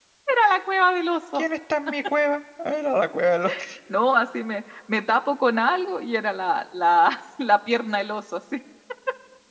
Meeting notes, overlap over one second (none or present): none